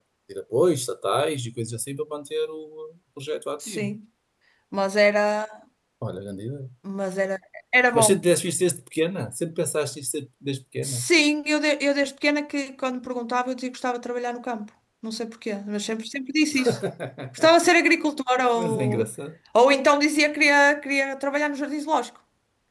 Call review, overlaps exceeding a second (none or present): none